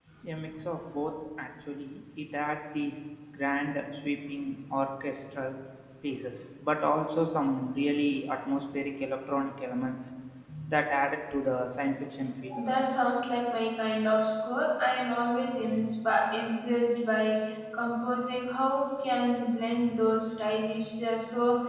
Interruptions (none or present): none